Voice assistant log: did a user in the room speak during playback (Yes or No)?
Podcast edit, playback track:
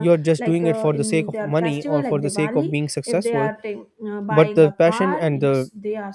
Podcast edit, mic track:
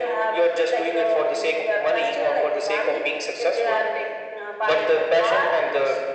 No